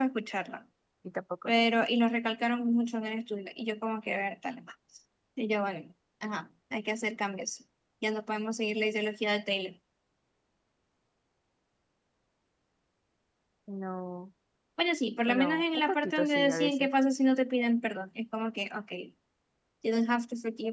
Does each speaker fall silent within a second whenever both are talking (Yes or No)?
No